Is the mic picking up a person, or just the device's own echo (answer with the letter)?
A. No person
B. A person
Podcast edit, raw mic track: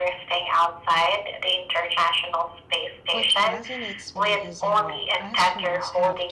B